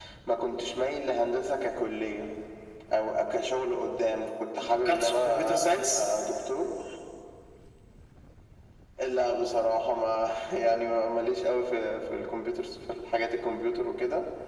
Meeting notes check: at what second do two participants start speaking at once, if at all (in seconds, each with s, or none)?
4.7 s